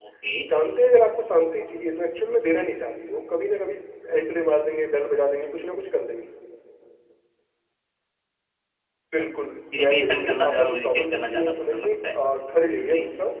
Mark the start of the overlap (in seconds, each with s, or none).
9.8 s